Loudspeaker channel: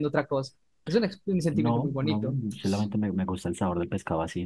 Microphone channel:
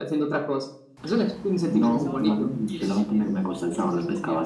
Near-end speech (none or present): present